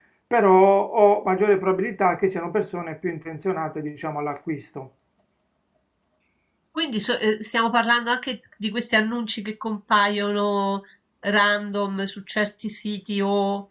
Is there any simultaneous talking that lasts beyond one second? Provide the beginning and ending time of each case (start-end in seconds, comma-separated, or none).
none